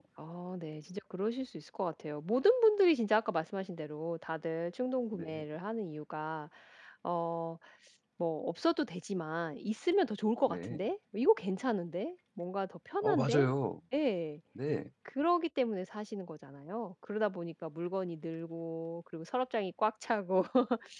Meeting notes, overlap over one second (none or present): none